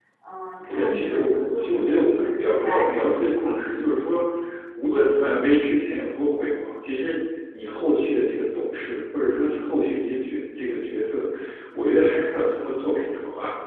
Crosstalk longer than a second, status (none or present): present